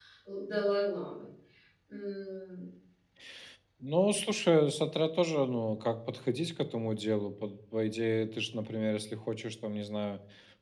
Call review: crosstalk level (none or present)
none